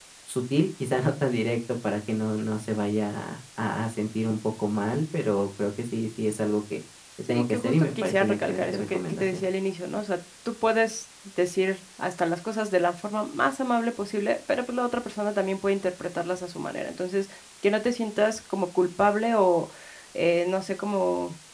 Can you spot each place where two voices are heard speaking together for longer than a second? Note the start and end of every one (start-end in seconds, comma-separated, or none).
7.3-9.4